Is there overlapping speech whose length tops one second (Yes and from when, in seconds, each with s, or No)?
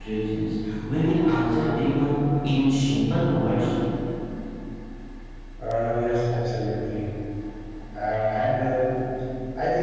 No